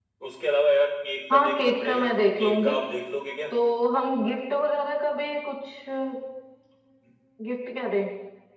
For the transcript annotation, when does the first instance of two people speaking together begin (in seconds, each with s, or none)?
1.3 s